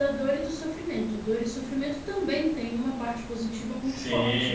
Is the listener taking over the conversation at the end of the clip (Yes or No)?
Yes